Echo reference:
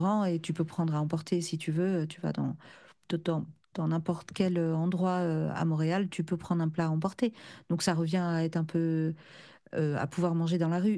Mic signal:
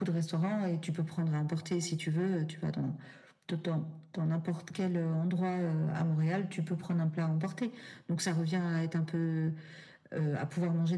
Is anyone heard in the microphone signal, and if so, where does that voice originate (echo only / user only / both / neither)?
echo only